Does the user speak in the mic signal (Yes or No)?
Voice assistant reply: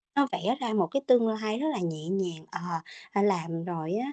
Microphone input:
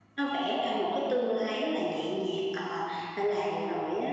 No